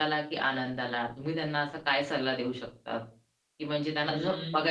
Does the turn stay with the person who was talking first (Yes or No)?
Yes